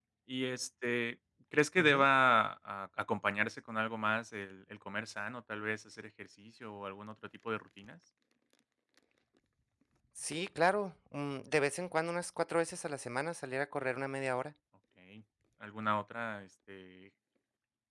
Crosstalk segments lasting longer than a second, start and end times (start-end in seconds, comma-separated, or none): none